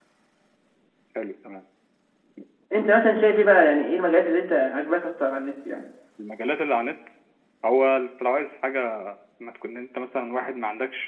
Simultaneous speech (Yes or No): No